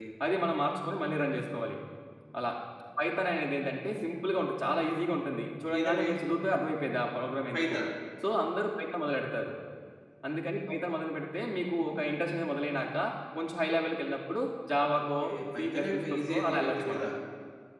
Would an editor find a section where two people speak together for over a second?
Yes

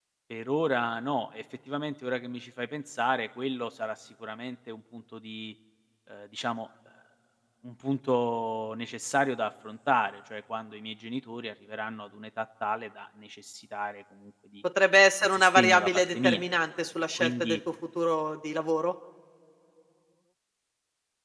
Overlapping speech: Yes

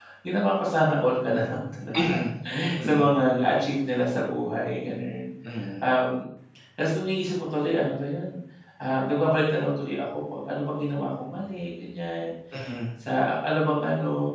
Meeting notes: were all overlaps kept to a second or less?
Yes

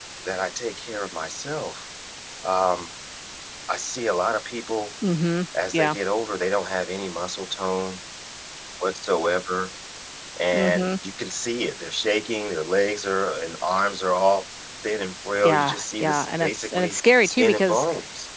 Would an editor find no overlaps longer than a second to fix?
No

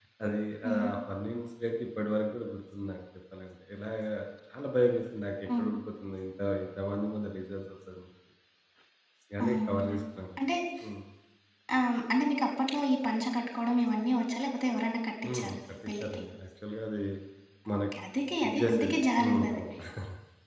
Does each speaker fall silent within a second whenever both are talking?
No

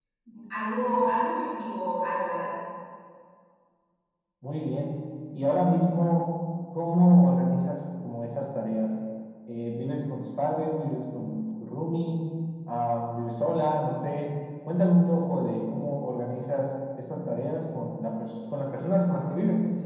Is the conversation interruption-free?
Yes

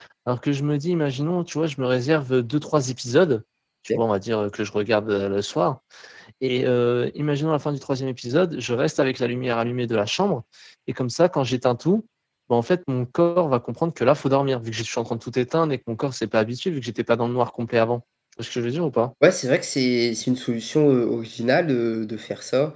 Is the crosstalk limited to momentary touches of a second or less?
Yes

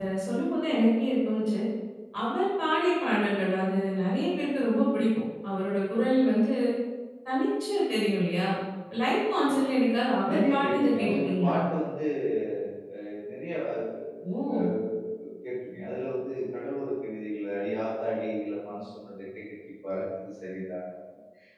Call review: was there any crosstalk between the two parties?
Yes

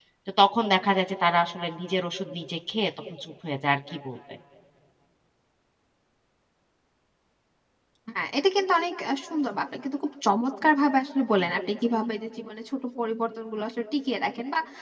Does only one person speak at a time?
Yes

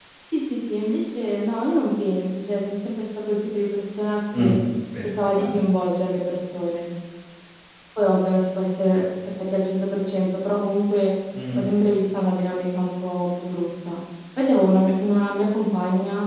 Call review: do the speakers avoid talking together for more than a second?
Yes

